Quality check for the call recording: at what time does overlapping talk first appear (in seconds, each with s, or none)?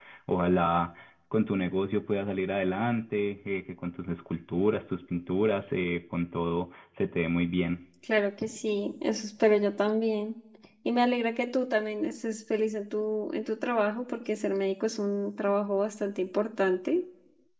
none